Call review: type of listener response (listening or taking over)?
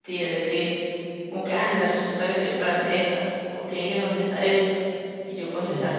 listening